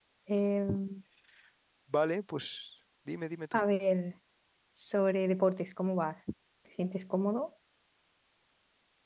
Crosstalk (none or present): none